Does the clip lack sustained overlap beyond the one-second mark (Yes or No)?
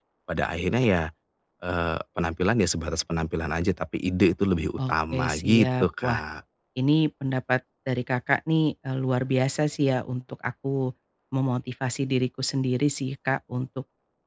No